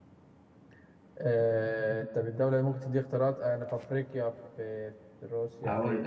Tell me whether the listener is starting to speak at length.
Yes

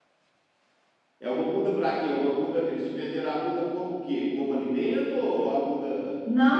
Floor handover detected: Yes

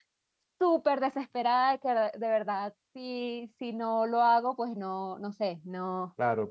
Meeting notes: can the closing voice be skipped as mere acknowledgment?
No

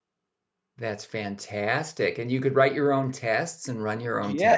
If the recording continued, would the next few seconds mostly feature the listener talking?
Yes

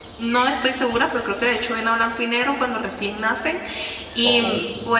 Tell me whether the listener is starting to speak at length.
No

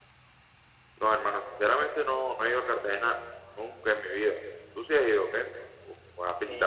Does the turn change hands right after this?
Yes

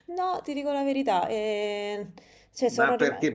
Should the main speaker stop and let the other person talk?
Yes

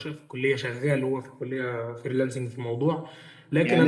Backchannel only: No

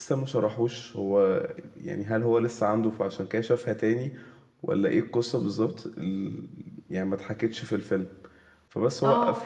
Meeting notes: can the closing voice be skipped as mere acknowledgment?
Yes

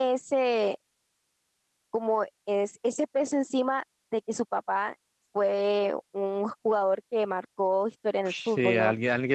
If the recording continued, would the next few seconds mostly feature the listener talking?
Yes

